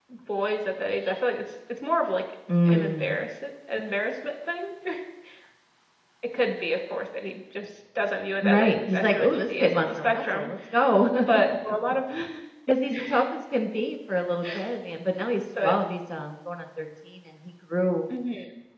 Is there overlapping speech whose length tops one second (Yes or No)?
Yes